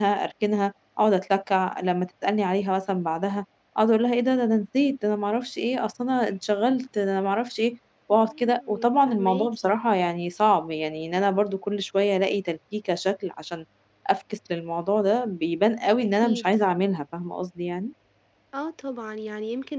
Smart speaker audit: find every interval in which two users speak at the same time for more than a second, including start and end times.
8.1-9.5

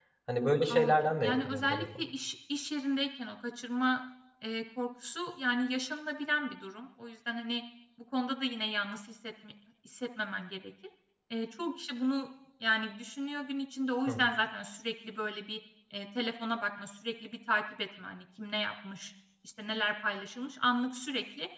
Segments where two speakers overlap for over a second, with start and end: 0.7-2.0

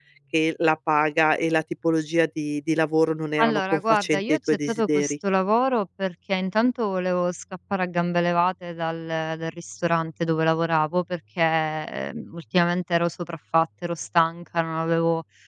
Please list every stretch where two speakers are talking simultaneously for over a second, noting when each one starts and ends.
3.4-5.1

